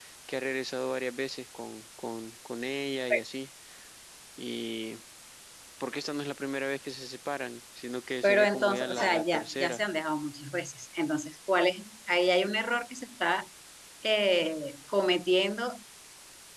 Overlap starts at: 8 s

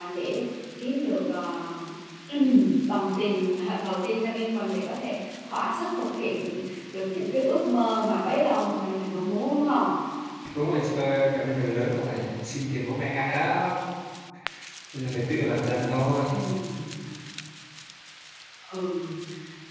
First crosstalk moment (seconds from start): none

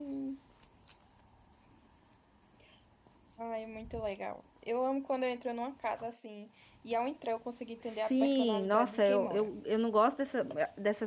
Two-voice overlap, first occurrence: 8 s

